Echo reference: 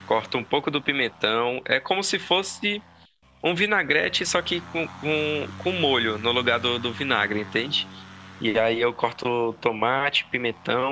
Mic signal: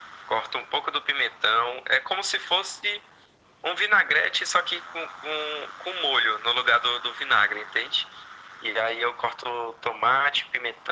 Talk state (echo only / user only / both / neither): echo only